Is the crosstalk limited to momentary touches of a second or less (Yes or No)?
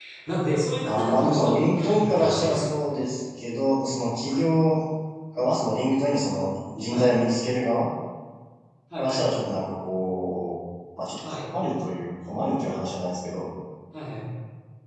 No